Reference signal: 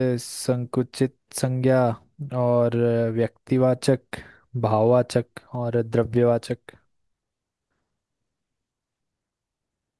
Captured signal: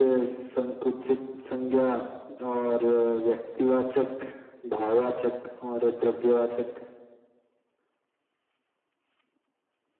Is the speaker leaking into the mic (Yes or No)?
Yes